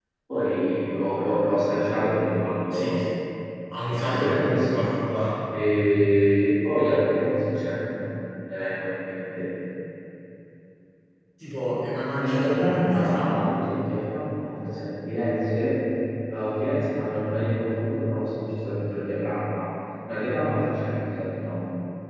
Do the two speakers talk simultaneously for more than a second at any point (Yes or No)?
Yes